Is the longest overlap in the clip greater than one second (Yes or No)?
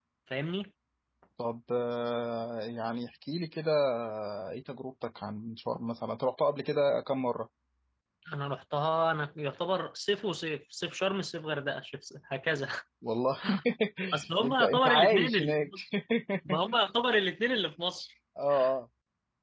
Yes